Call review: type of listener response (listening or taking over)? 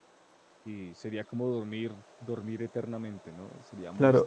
taking over